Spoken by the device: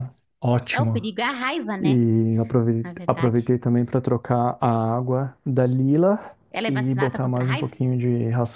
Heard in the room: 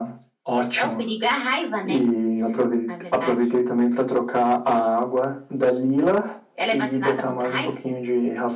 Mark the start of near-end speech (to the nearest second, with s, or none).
none